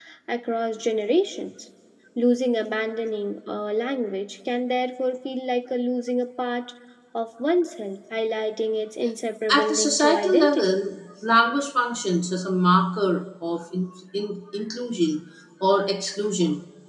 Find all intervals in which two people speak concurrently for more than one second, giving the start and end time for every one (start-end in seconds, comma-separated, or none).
9.5-10.8